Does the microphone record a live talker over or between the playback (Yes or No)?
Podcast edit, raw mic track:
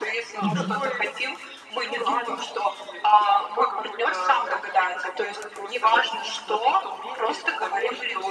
Yes